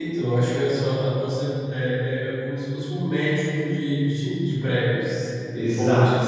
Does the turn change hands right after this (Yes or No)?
Yes